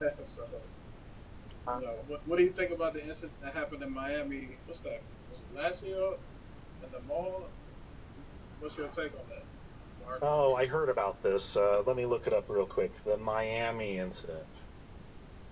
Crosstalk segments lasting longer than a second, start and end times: none

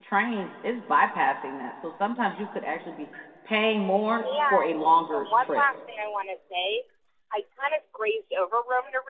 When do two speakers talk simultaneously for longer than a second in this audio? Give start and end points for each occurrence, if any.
4.2-5.6

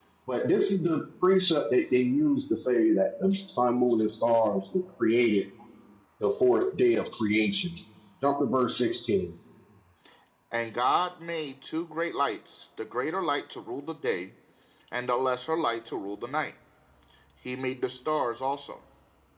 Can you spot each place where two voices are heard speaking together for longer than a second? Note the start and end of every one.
none

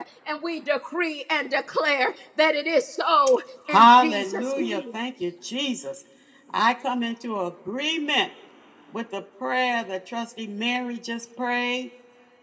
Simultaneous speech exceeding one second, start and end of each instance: 3.7-4.9

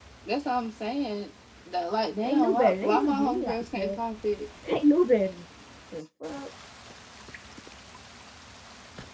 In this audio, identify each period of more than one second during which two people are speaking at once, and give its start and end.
2.2-4.0

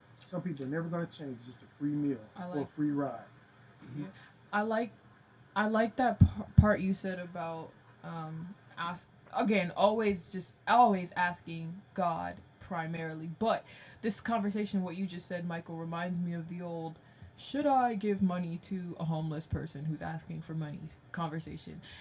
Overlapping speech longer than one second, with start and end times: none

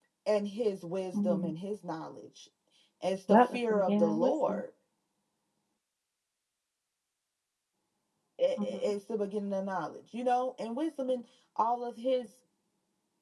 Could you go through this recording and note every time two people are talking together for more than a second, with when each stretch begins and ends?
3.3-4.6

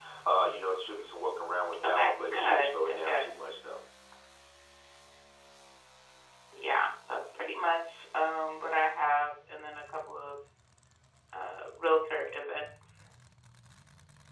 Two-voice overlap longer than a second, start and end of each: 1.8-3.3

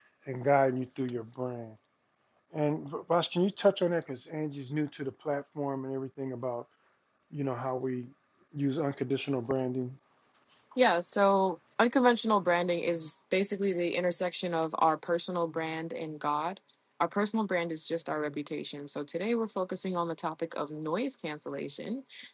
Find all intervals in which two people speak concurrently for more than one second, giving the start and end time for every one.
none

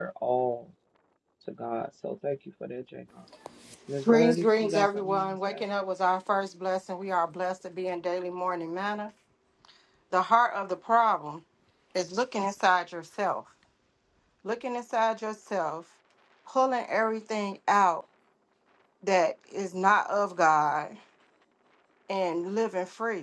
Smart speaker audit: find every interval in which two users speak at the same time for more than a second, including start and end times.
4.1-5.6

